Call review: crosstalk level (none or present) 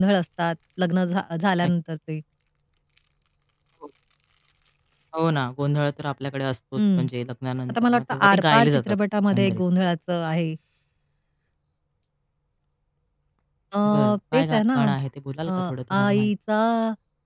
present